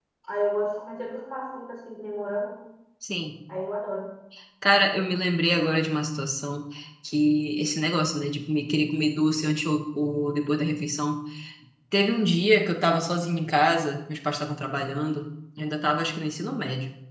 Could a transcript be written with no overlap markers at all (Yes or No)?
Yes